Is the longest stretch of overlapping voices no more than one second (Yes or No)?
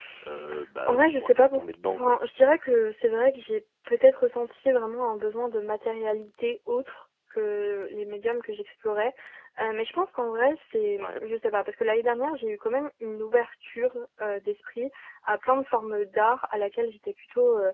No